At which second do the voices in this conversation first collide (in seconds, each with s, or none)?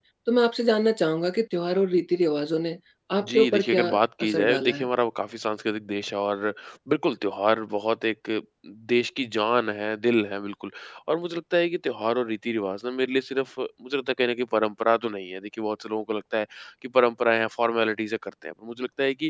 3.2 s